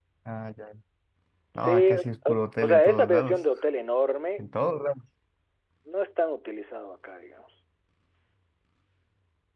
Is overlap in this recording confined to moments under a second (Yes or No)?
No